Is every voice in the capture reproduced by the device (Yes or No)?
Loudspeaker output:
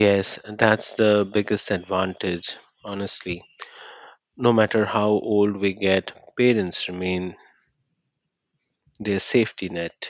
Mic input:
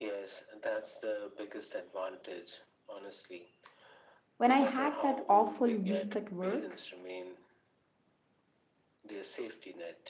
No